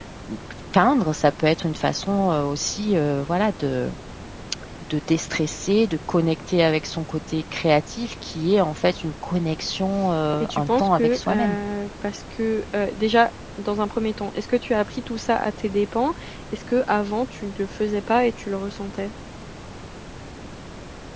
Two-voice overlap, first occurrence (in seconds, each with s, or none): 10.4 s